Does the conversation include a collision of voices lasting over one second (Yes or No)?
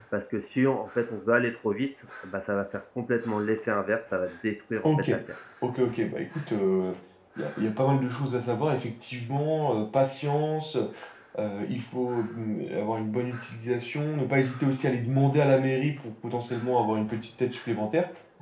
No